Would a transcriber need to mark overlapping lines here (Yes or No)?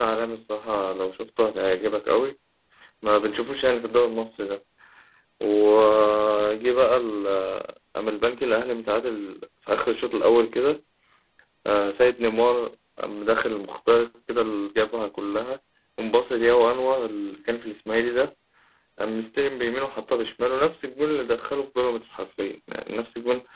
No